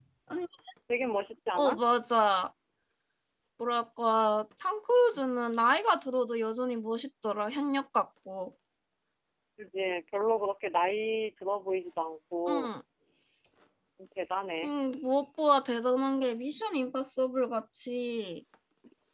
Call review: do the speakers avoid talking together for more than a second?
Yes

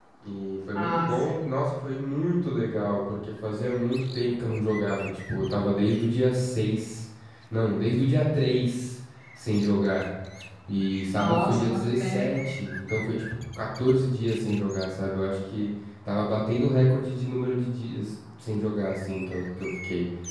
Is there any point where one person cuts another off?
Yes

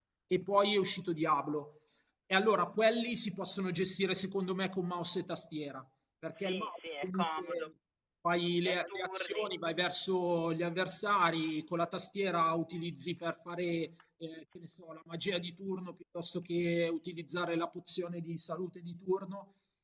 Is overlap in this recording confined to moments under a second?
No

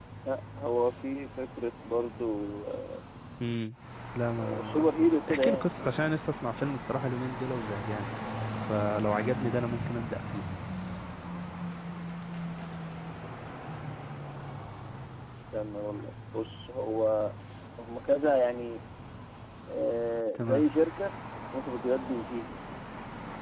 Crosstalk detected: Yes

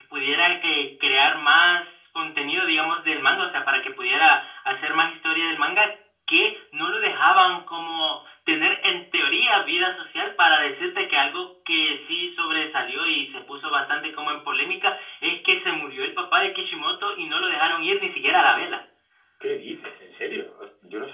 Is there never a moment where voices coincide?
Yes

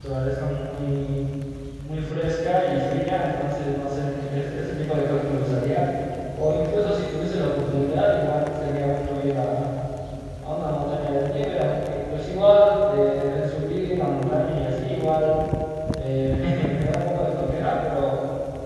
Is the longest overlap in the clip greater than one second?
No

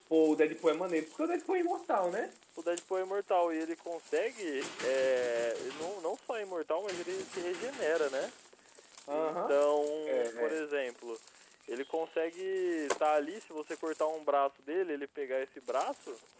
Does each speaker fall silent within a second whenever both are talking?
Yes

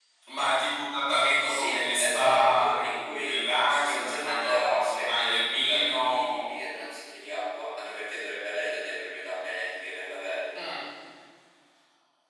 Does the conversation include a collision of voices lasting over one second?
Yes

